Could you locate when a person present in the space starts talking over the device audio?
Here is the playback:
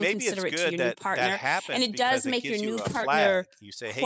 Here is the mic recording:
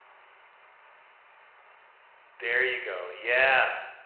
2.3 s

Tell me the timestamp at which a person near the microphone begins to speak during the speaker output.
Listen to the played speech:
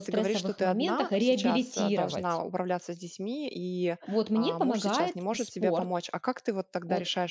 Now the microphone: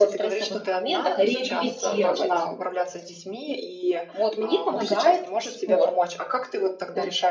none

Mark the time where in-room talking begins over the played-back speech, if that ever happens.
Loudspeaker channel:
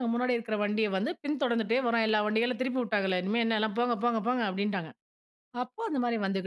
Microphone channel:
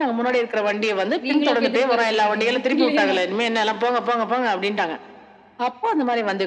1.2 s

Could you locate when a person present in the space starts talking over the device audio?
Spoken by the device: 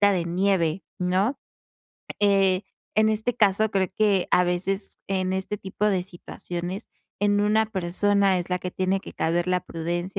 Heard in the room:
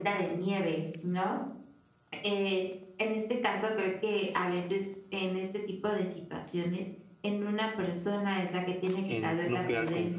9.1 s

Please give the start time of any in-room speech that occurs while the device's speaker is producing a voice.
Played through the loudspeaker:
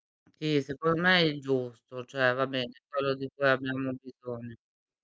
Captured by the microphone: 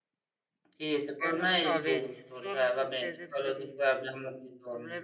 1.2 s

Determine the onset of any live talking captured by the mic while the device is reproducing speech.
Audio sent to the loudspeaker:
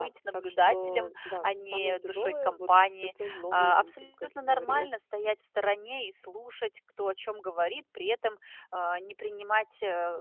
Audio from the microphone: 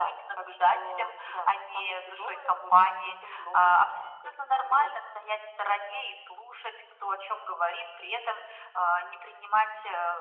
none

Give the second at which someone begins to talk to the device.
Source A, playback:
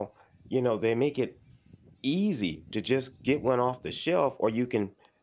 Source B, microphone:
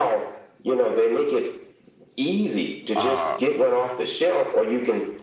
2.9 s

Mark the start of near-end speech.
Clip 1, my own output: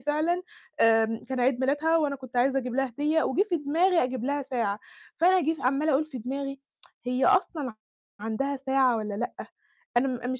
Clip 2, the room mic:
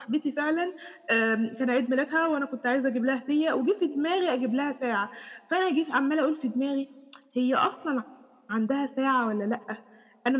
none

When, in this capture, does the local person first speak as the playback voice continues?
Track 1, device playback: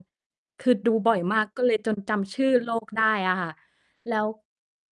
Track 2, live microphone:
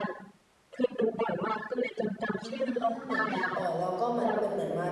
2.4 s

